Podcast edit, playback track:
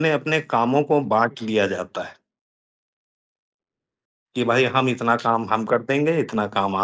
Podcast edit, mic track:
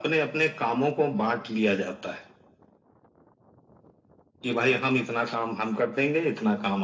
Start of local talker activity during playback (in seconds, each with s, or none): none